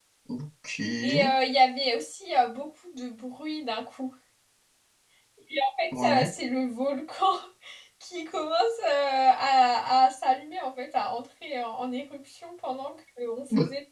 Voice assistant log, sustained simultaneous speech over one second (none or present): none